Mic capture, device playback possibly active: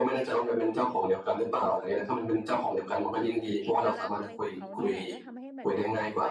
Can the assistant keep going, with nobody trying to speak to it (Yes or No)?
No